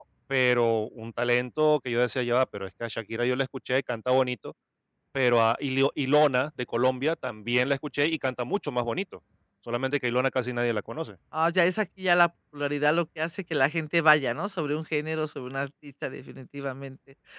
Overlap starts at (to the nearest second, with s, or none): none